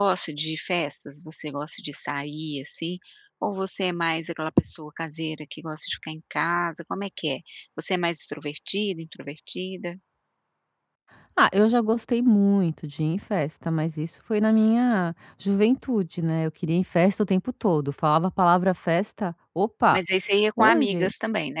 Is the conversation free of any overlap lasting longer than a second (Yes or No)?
Yes